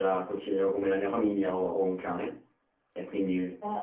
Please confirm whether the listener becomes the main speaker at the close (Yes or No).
No